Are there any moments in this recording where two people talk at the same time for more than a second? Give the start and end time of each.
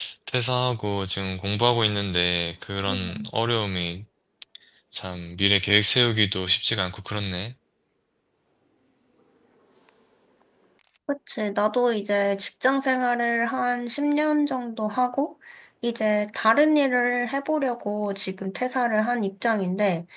none

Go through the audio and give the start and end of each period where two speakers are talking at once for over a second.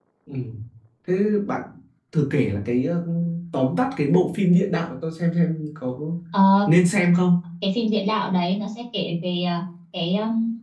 none

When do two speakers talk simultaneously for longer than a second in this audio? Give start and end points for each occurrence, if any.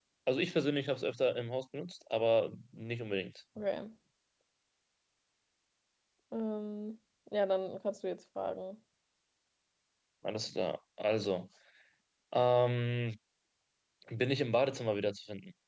none

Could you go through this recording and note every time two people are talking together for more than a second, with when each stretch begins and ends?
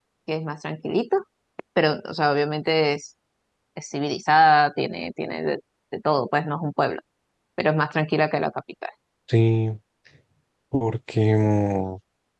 none

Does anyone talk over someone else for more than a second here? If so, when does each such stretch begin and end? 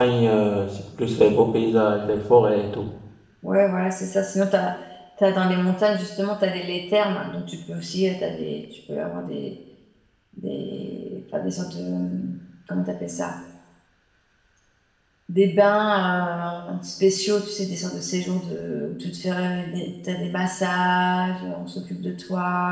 none

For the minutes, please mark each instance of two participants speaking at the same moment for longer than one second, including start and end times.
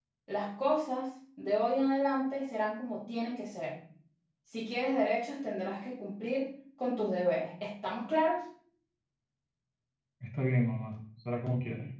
none

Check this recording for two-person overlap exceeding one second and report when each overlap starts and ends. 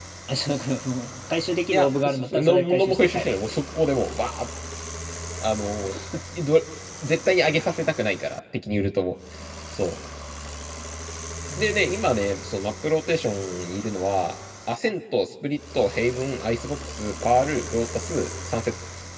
1.7-3.3

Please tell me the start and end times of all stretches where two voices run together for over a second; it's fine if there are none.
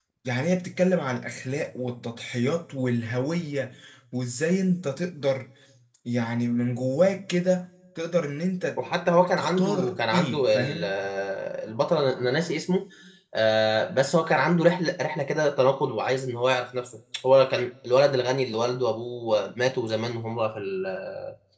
9.4-10.9

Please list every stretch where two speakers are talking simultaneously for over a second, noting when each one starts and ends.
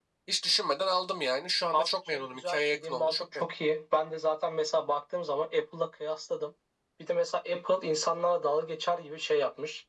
1.7-3.5

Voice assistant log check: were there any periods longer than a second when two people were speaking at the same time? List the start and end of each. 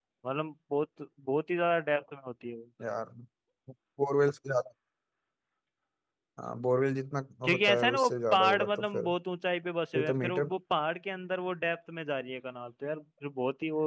7.4-9.1

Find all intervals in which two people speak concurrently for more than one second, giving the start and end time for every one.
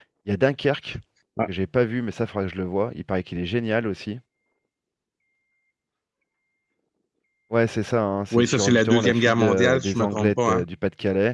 8.3-10.6

